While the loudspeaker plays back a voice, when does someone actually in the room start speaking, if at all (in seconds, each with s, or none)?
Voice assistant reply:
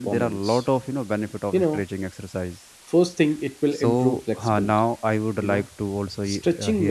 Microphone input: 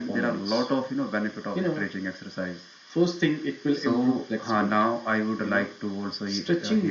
none